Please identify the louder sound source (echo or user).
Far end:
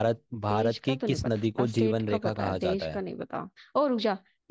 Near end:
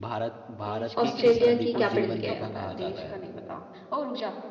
user